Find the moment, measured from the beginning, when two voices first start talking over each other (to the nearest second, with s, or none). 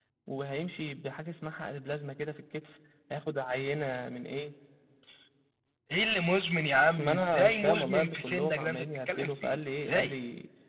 7 s